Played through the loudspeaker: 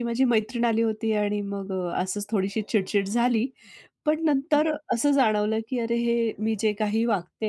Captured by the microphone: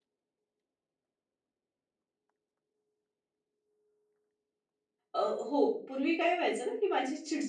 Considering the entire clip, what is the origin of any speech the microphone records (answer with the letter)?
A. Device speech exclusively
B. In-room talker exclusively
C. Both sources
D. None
B